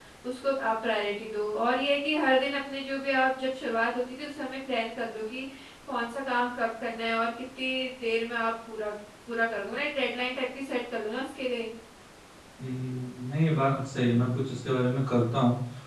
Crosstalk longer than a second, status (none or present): none